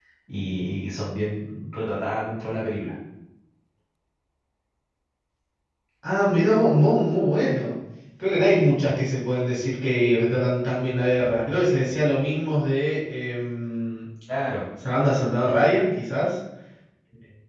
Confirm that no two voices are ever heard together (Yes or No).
Yes